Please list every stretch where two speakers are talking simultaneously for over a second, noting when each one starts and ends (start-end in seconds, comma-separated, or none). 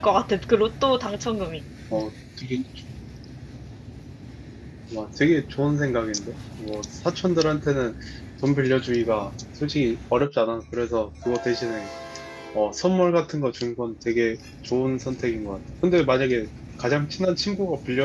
none